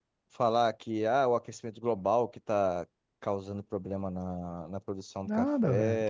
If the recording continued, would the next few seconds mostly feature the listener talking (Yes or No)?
Yes